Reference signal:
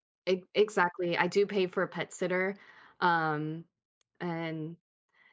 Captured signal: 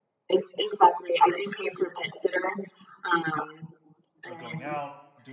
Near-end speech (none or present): present